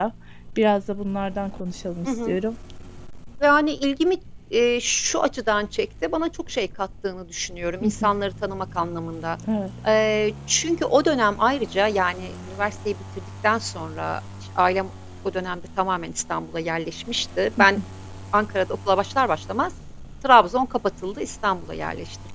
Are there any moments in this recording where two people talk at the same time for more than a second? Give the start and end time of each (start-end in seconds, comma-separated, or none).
none